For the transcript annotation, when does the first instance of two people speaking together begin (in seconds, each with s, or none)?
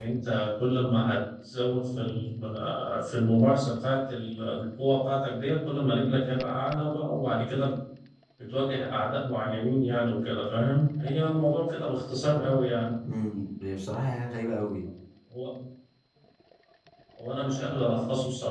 none